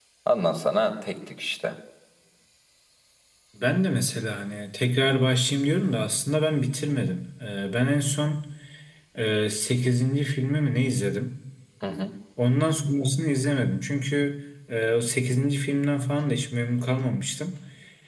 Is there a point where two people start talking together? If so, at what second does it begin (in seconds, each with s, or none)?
none